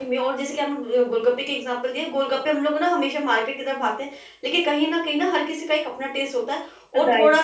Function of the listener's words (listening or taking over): listening